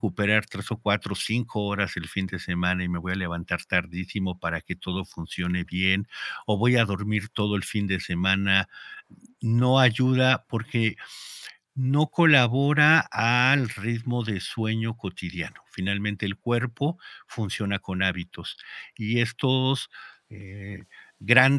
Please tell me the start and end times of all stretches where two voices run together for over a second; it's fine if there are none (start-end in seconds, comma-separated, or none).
none